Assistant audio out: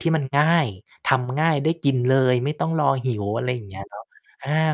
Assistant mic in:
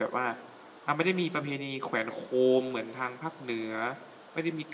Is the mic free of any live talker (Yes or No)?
No